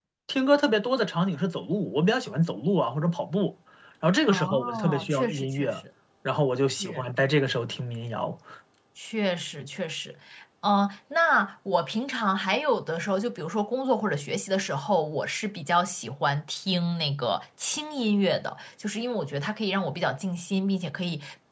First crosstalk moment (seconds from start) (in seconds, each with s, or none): 4.3 s